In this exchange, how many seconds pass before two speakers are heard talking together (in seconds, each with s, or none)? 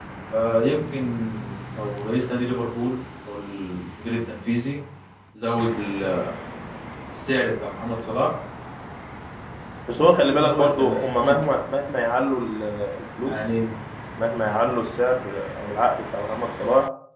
10.0 s